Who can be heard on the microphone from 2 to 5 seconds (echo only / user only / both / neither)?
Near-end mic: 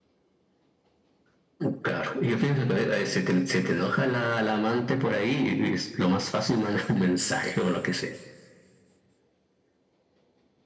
echo only